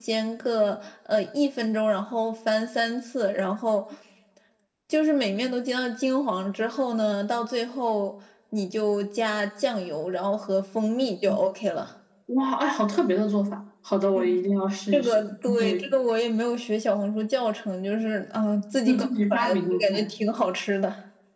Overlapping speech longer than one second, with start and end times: 18.9-20.1

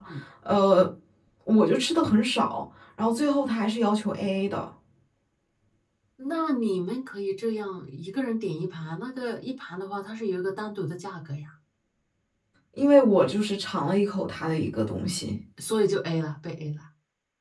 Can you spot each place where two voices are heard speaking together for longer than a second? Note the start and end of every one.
none

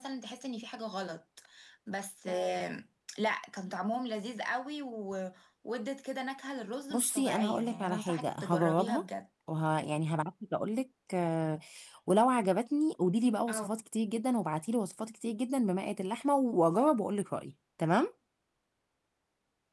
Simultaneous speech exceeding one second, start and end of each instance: 6.9-9.0

